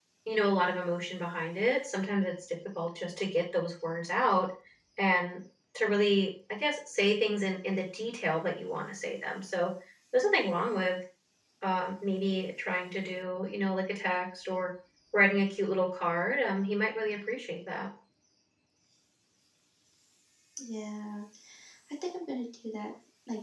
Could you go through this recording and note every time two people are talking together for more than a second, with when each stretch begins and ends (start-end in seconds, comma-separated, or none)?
none